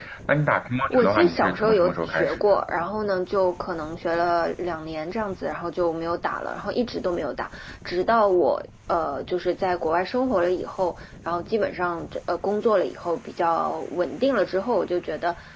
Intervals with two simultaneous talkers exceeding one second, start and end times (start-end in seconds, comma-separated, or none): 0.9-2.5